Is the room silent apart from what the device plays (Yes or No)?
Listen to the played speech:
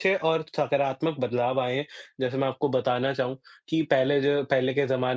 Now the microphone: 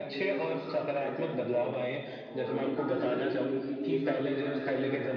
No